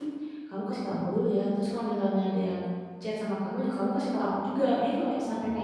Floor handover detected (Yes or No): Yes